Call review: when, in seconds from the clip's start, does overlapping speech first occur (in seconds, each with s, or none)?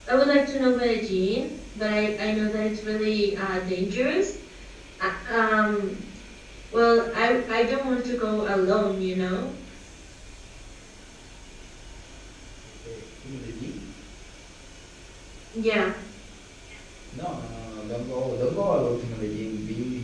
none